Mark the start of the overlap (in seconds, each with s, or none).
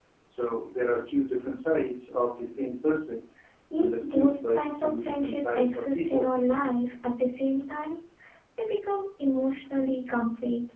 3.8 s